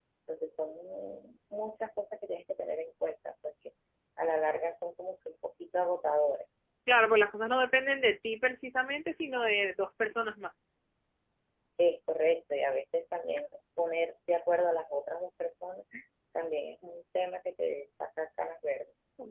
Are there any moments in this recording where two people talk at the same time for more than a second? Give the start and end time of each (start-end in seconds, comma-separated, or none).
none